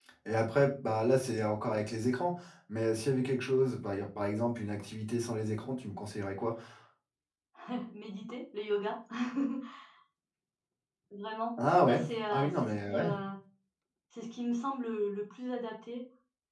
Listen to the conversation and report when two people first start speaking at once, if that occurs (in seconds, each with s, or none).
11.9 s